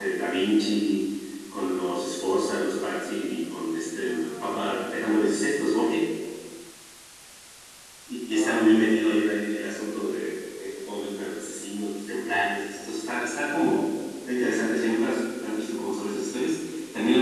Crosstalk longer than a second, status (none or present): present